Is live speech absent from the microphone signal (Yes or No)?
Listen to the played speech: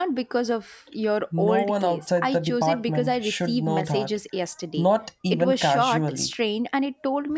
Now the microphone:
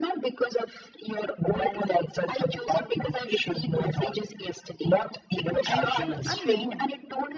No